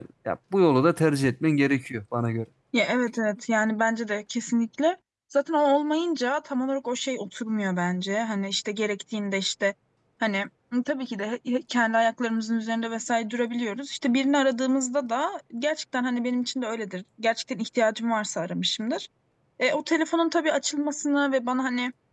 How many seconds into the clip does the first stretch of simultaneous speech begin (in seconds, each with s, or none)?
none